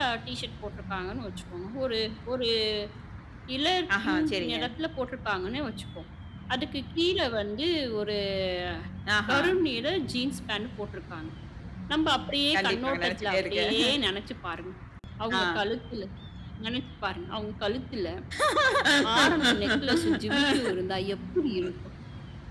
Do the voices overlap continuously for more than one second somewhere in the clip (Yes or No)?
Yes